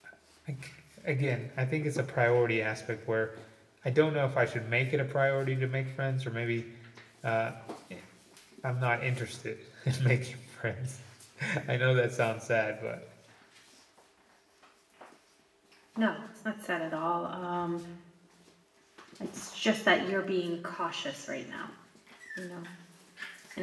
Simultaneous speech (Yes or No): No